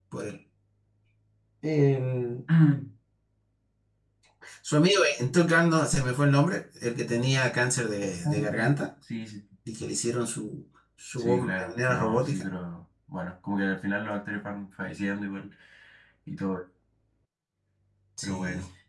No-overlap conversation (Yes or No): No